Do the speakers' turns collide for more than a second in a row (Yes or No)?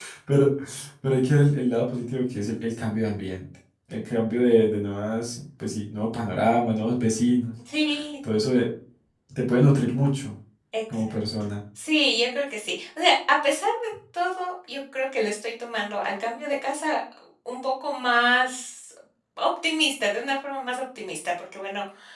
No